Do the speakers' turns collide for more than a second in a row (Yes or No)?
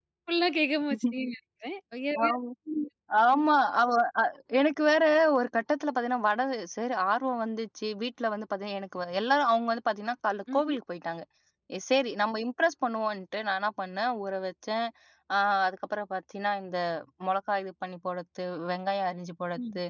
No